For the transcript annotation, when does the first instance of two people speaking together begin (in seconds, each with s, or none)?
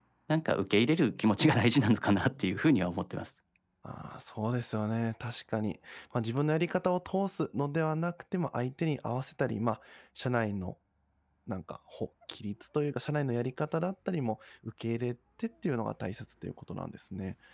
none